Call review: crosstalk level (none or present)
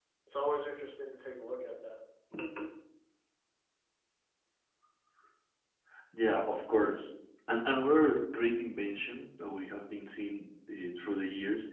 none